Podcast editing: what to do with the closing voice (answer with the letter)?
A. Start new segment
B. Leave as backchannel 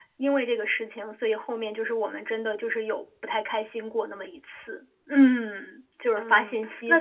A